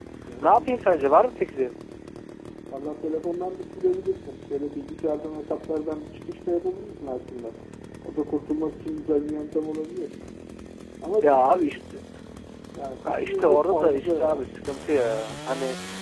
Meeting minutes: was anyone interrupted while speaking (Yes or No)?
Yes